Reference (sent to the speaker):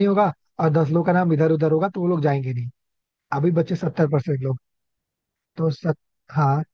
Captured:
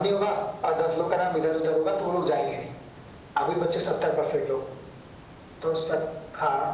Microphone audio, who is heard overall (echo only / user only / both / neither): echo only